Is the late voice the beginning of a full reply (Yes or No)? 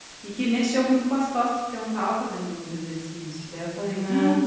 Yes